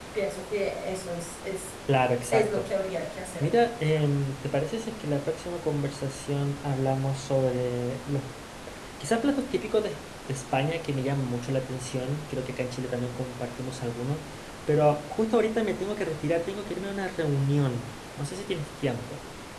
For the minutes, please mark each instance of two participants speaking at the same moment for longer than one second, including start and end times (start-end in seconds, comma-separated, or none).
none